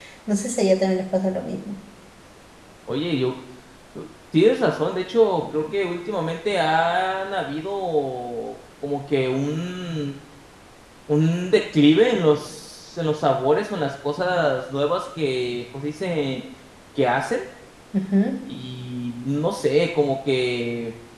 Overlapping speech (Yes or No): No